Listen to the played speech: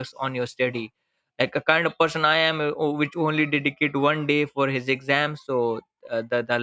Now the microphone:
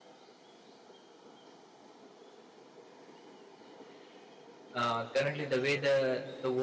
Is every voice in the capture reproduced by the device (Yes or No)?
No